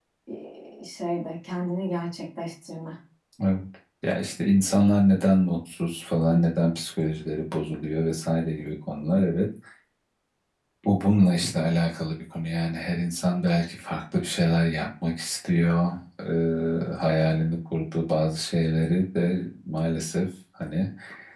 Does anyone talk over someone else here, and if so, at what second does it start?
none

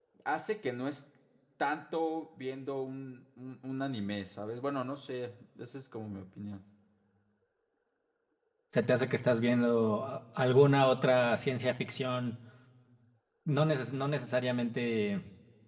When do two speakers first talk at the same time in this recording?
none

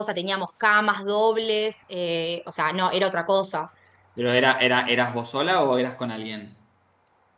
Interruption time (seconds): none

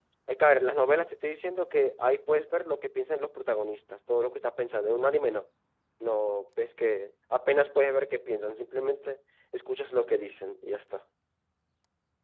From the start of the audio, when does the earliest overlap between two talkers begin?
none

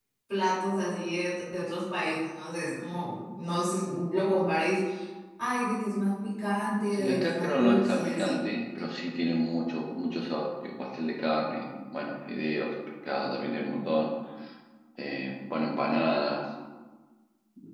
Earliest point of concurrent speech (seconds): 6.9 s

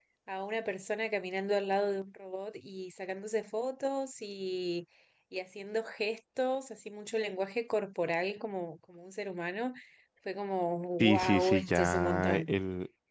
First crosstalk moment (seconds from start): 11.0 s

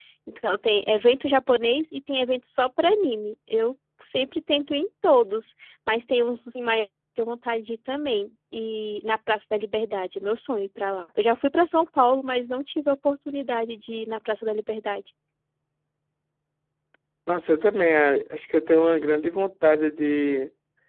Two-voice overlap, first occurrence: none

